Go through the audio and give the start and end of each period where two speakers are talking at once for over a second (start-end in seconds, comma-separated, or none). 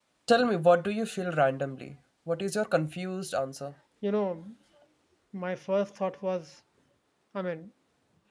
none